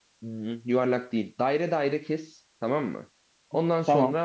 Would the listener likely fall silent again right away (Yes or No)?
Yes